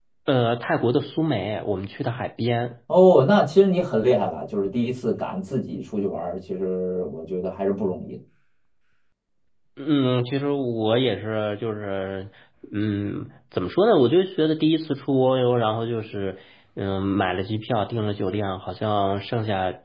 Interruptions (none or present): none